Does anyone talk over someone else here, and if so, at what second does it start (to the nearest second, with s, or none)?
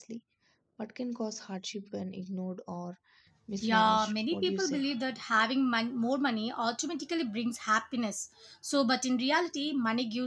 4 s